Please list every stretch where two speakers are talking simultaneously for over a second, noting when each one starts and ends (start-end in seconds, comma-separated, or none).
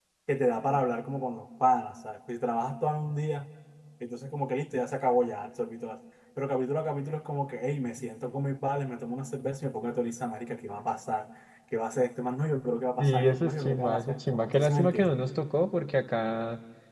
13.0-15.2